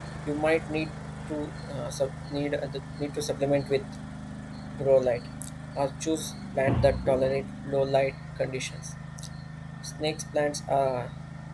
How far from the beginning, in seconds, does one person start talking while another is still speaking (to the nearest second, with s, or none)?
none